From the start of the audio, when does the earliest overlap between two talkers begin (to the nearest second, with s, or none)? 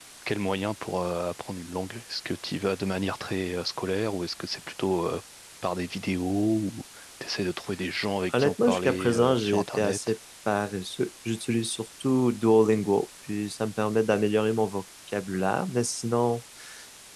8 s